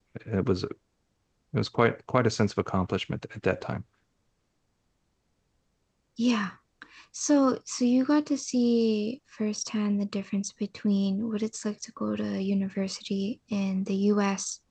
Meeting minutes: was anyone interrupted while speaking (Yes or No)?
No